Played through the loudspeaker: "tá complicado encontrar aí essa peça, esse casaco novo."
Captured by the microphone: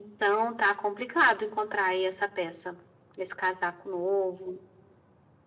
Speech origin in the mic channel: echo only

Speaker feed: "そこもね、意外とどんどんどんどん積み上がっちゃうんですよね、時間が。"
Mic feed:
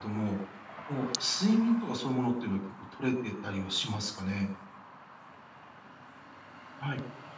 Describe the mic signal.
user only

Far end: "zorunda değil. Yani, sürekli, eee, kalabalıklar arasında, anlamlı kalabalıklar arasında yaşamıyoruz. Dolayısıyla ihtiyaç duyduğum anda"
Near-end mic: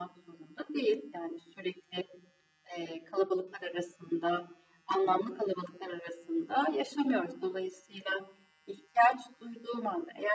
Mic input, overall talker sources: echo only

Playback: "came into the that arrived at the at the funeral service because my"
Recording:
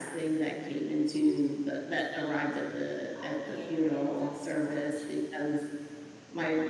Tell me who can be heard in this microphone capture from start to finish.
both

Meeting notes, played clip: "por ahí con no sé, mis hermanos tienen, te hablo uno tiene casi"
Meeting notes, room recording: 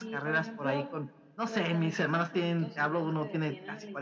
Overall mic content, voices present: both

